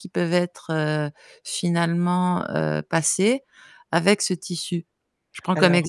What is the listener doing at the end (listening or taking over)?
listening